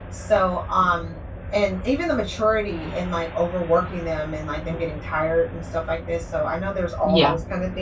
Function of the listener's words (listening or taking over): listening